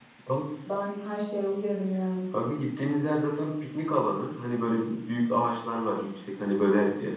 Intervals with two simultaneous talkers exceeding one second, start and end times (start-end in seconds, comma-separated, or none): none